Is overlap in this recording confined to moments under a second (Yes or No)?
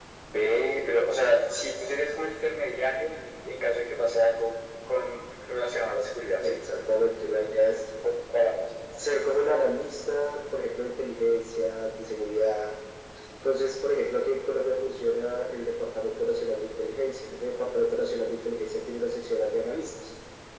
Yes